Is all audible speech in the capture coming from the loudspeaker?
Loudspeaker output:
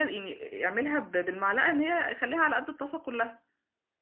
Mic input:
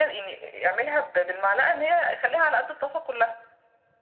Yes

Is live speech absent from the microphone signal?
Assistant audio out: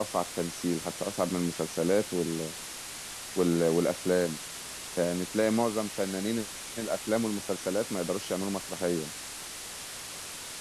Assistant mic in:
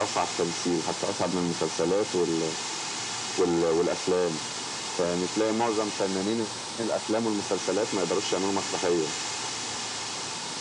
Yes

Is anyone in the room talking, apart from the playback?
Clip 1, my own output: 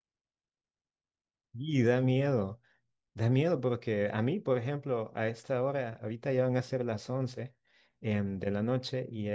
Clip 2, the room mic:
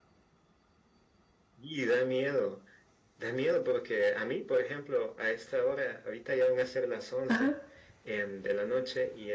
Yes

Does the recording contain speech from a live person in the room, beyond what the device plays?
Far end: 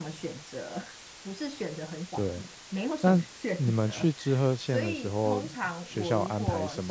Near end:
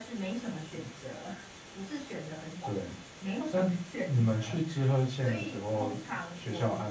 No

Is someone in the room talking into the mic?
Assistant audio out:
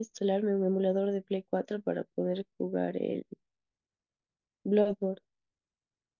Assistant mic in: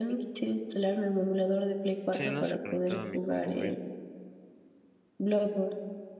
Yes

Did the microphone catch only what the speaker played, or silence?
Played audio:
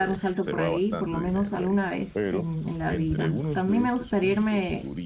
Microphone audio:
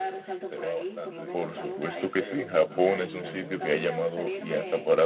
No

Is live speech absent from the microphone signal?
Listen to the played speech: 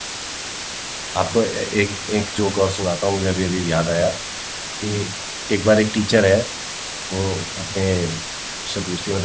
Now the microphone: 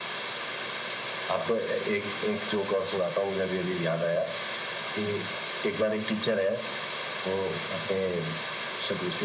Yes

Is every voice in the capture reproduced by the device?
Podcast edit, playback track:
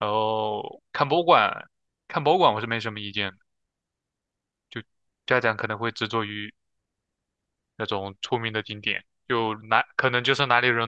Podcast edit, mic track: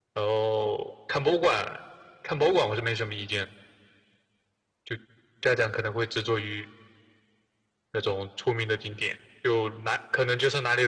Yes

